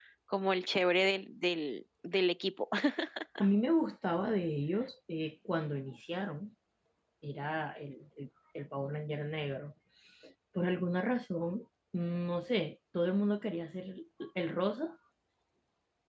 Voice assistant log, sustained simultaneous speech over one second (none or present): none